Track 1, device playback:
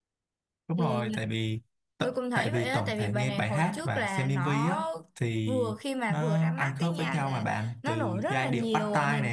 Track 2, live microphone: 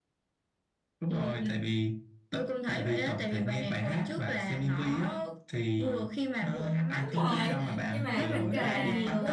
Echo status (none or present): present